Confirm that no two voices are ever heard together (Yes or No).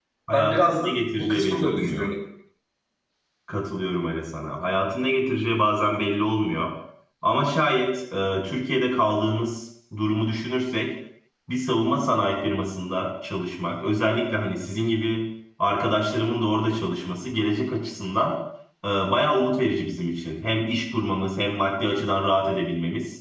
No